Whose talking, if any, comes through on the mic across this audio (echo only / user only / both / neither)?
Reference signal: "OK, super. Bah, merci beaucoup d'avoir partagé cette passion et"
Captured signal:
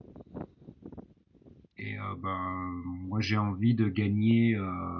user only